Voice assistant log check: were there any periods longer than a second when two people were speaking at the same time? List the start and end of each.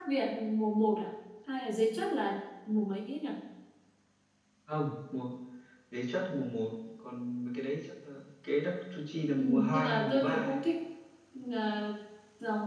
9.4-10.6

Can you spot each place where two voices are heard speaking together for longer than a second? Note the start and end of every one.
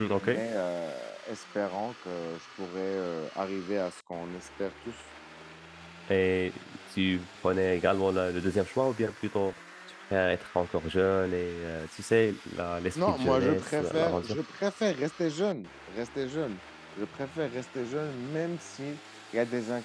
12.9-14.4

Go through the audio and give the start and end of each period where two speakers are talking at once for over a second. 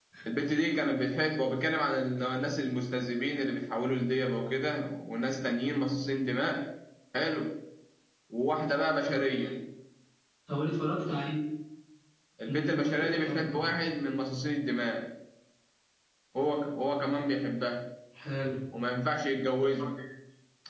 12.5-13.7

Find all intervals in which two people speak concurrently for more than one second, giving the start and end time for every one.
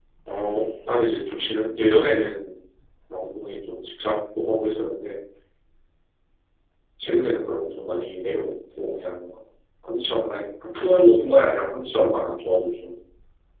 none

